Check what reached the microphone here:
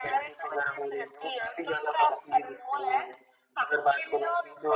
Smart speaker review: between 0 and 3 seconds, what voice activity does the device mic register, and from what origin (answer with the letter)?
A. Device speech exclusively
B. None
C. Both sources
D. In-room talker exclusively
A